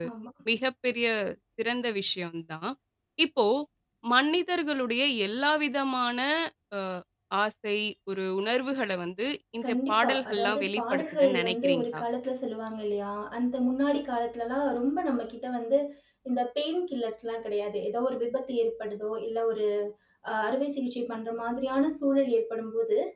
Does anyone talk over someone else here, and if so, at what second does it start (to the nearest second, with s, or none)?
10 s